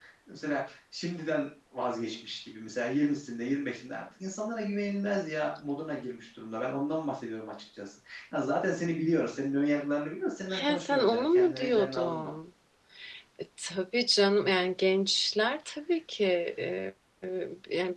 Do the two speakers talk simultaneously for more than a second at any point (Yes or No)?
Yes